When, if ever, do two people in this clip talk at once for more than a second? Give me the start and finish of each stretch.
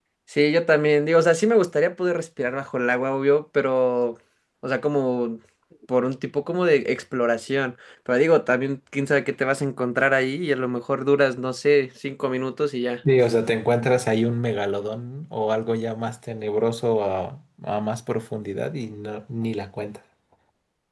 none

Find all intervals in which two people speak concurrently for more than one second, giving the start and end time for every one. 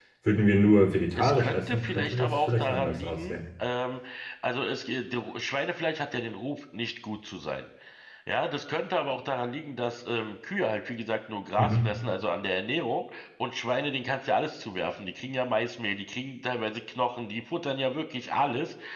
1.2-3.4

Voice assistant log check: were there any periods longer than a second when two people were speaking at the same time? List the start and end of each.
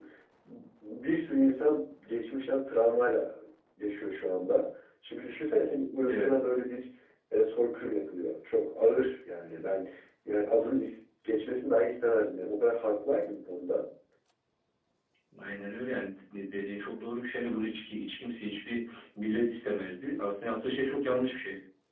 none

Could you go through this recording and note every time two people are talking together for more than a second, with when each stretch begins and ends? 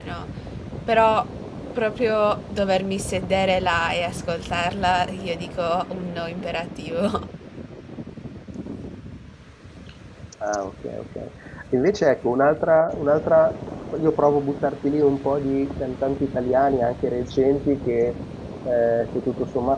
none

